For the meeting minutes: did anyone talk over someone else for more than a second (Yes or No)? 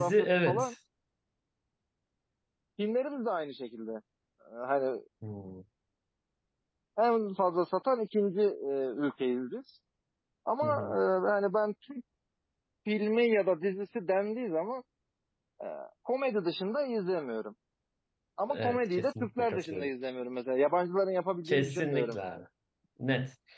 Yes